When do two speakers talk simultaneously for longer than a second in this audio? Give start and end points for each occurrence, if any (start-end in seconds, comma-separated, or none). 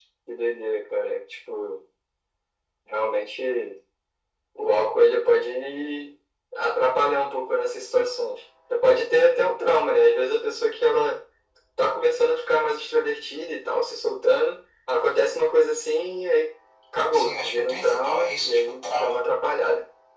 17.1-19.2